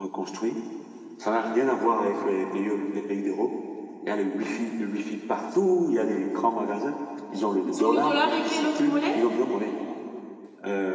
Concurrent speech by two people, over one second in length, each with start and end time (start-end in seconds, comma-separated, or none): 7.6-9.2